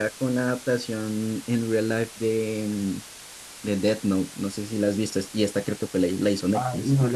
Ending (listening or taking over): taking over